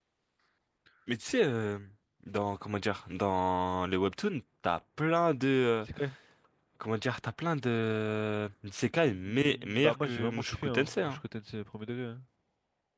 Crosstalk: present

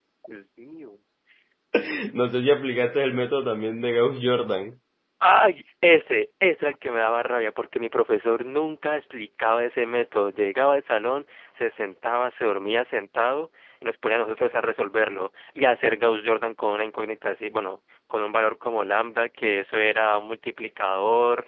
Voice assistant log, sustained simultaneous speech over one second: none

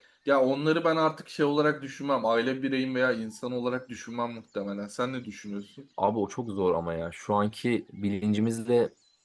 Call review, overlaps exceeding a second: none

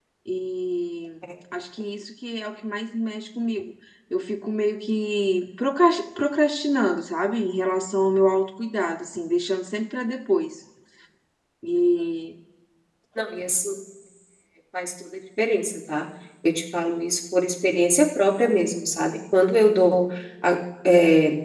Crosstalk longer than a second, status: none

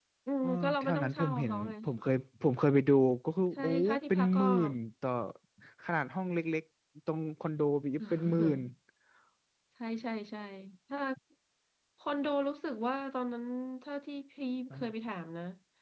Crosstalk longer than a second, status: present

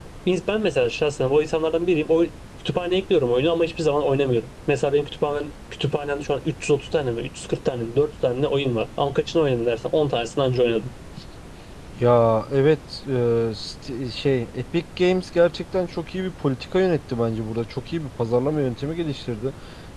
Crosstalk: none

